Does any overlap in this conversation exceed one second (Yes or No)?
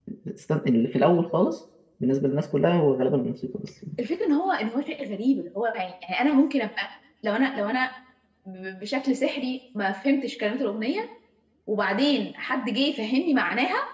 No